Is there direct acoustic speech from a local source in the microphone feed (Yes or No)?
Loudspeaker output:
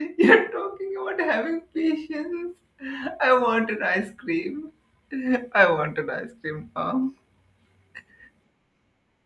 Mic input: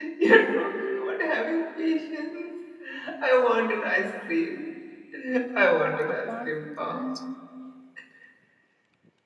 Yes